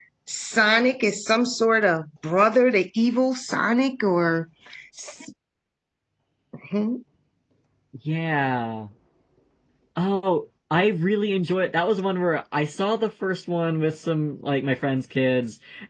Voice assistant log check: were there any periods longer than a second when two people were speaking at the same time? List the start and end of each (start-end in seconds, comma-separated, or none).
none